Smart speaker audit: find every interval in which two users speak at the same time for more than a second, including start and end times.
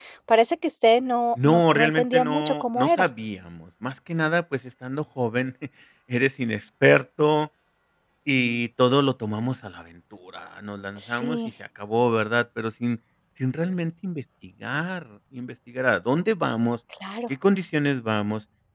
1.4-3.1

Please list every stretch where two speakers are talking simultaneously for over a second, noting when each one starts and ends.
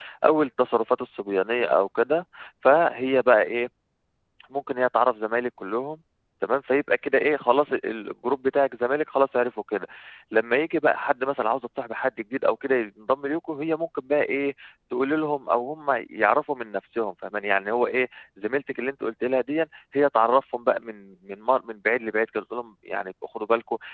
none

